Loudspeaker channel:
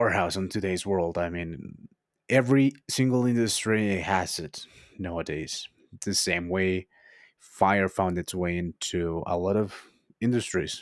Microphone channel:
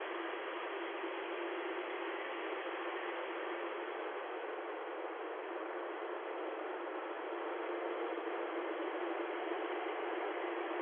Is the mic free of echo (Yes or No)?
Yes